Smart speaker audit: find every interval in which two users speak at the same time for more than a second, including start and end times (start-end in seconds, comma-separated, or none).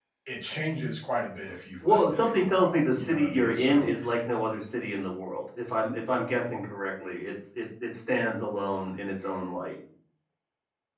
1.8-3.9